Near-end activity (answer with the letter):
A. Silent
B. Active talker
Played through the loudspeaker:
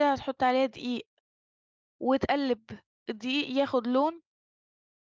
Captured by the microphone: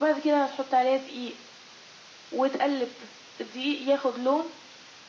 A